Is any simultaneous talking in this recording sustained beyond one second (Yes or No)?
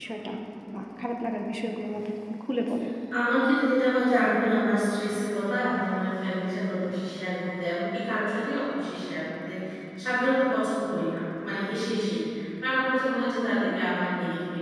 No